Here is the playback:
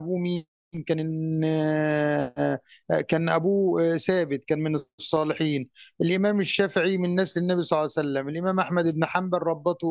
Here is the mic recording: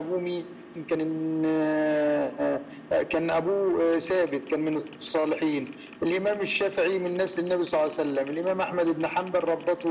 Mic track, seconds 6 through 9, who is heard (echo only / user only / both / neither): echo only